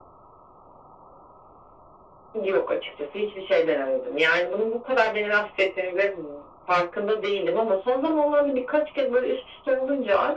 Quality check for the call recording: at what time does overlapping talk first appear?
none

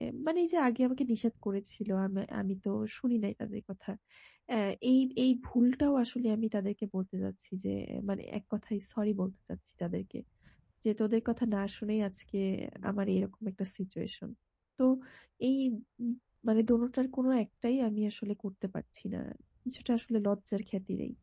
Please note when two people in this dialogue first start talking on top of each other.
none

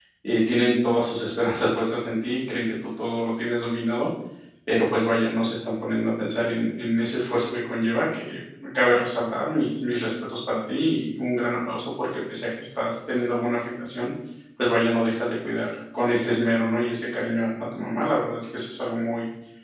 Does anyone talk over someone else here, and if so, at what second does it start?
none

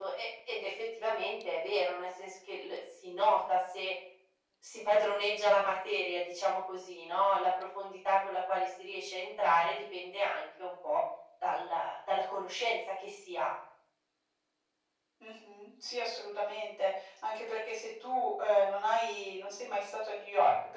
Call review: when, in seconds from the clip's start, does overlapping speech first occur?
none

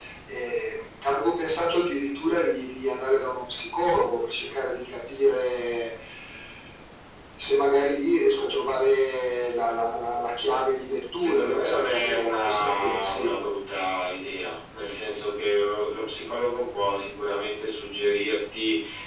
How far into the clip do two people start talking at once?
11.2 s

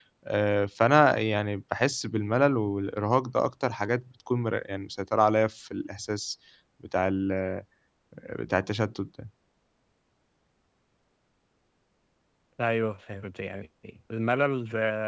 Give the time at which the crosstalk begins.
none

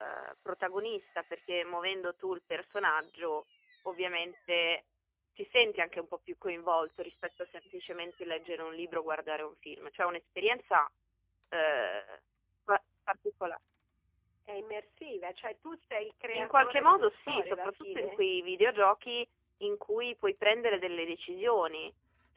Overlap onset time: 16.3 s

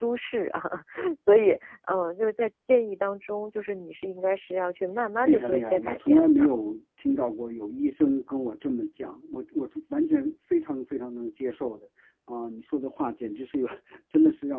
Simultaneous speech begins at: 5.2 s

